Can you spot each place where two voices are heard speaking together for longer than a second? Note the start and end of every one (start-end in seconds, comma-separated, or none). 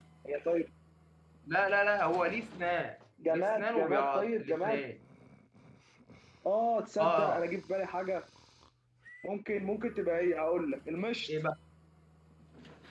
3.3-4.8